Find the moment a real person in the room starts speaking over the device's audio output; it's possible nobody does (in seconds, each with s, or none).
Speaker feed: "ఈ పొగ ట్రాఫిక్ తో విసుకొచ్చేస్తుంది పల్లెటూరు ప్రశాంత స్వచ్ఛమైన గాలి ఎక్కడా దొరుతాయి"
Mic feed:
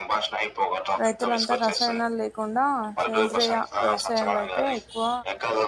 1.0 s